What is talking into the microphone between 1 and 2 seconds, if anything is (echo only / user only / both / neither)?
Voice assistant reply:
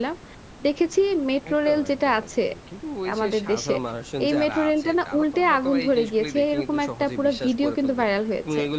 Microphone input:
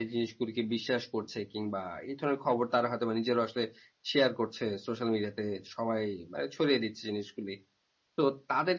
user only